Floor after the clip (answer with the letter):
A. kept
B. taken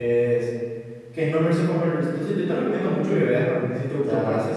B